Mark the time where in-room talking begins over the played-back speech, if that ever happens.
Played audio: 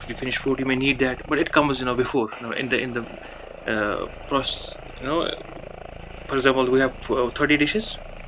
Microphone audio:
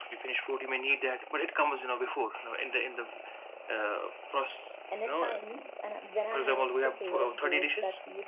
4.9 s

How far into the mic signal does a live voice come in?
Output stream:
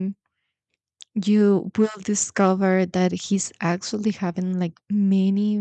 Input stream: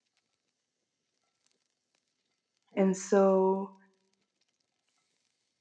2.8 s

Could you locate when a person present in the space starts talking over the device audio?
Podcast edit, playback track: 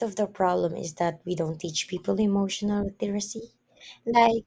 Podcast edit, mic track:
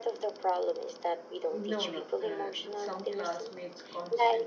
1.5 s

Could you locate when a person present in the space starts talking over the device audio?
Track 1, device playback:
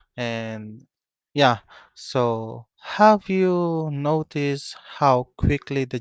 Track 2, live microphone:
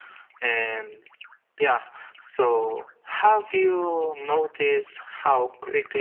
none

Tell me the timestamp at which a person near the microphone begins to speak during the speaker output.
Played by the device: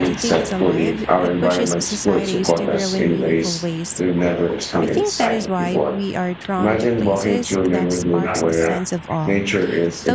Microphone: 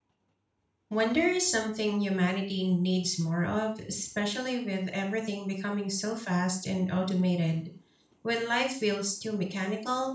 0.9 s

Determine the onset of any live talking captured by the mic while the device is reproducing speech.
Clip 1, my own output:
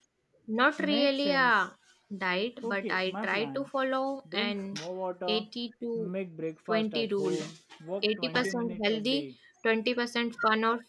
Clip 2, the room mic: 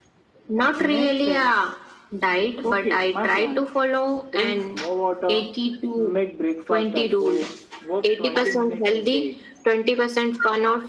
none

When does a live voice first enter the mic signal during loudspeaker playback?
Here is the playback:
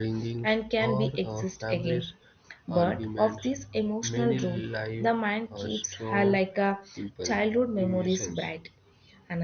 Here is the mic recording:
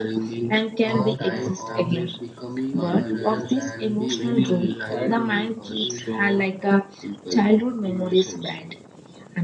0.8 s

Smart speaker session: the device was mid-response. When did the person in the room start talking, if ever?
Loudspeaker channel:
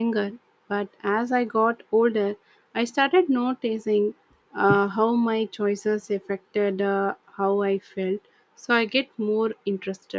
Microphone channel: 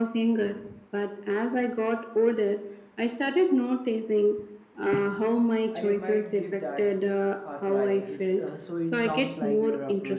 5.7 s

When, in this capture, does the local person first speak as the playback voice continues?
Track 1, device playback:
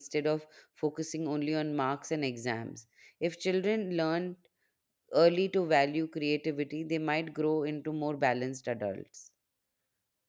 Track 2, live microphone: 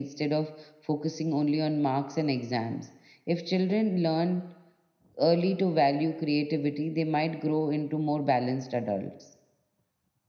none

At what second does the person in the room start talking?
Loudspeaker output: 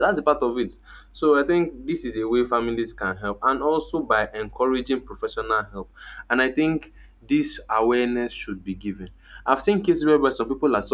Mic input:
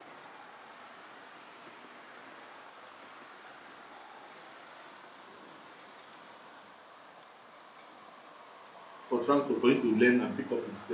9.1 s

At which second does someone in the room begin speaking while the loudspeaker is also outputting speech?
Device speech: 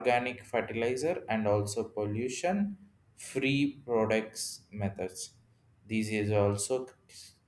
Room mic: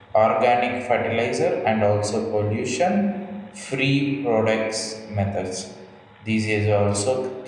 none

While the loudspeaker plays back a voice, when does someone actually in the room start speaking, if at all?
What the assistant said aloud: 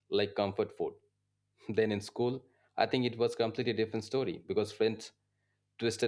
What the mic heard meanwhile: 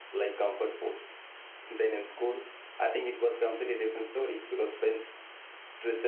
none

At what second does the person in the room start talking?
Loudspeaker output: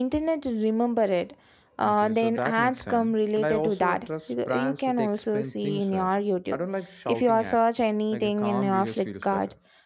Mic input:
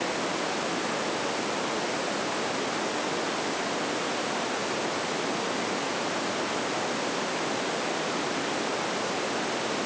none

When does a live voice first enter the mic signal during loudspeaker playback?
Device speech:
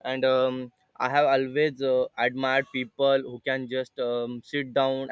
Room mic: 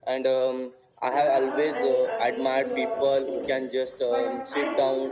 1.1 s

